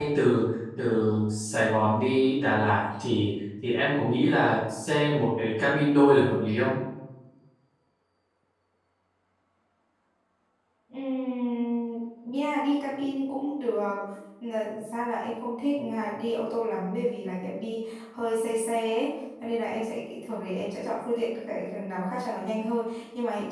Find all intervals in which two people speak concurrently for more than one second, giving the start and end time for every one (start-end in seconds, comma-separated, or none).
none